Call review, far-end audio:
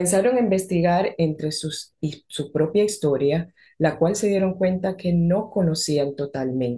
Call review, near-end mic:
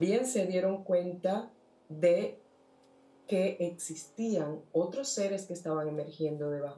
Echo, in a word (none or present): none